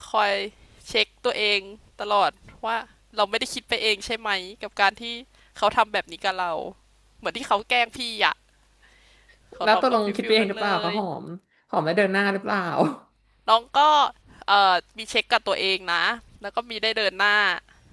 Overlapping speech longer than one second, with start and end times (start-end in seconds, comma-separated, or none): 9.6-10.9